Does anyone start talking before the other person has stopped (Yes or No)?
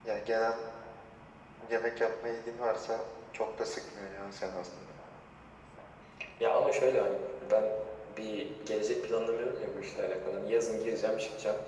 No